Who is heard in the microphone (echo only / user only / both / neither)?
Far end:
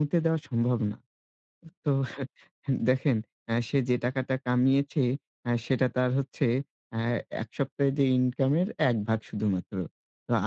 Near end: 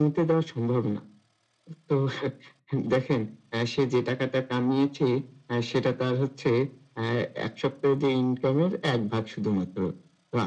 echo only